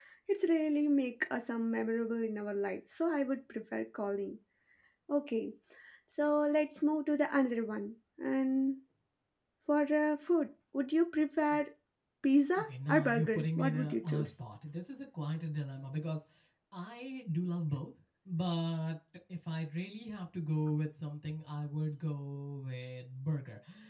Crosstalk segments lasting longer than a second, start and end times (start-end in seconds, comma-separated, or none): 12.6-14.3